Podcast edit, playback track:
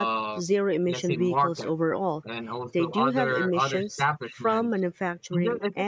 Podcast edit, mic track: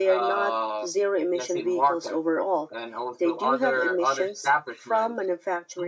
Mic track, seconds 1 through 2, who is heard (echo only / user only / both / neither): echo only